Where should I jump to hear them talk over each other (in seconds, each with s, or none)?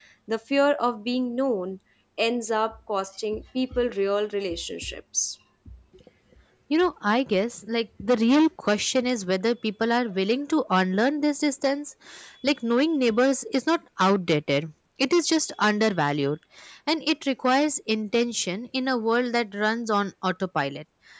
none